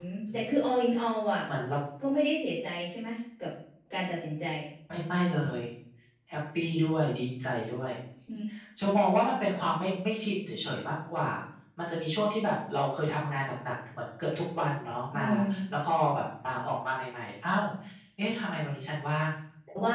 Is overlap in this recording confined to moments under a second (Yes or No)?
Yes